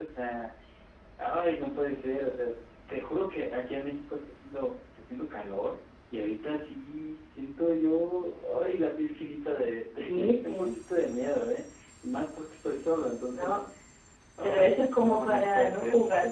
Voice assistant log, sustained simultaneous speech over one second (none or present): present